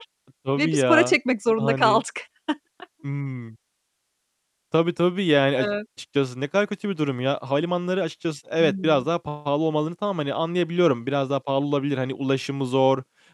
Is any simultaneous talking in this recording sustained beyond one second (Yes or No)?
No